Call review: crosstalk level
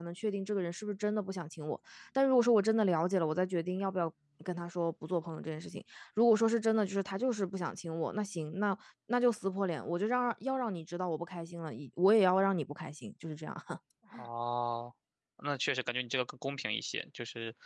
none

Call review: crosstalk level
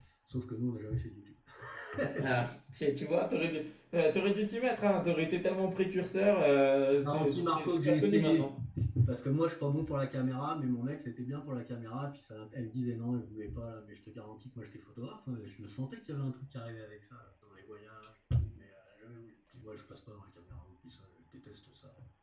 present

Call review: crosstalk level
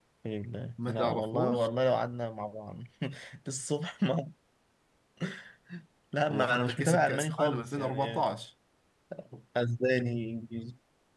present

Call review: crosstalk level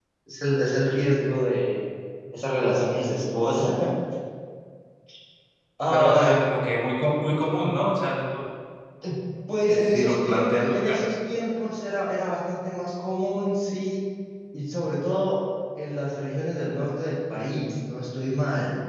present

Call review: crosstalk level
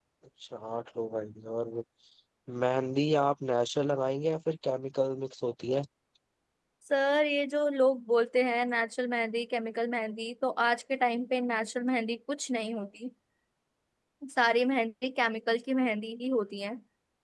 none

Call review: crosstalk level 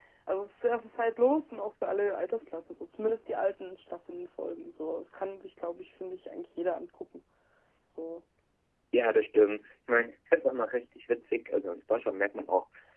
none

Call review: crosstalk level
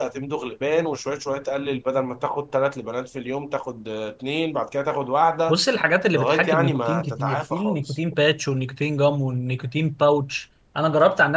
present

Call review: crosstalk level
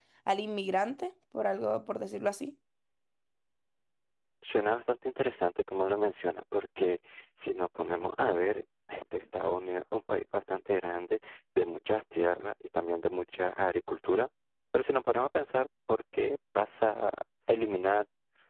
none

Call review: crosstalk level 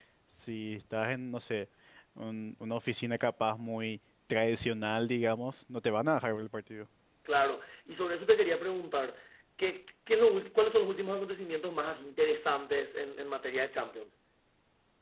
none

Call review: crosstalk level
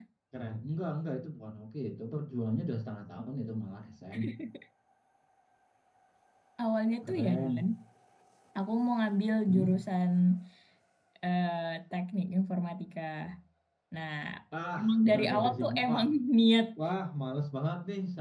present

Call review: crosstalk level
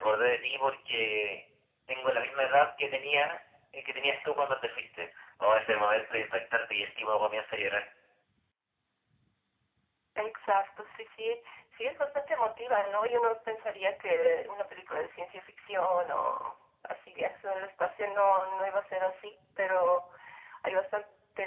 none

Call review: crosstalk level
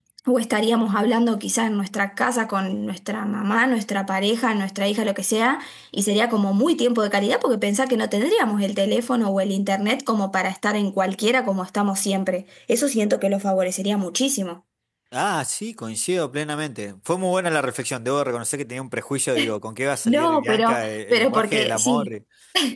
present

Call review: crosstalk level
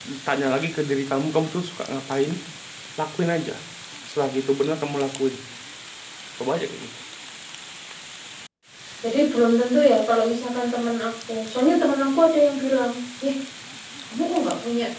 none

